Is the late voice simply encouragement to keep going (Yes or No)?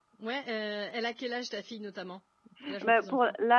No